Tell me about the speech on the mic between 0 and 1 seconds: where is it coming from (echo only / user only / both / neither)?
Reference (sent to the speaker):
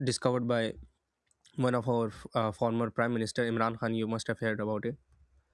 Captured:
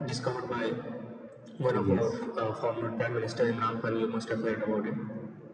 echo only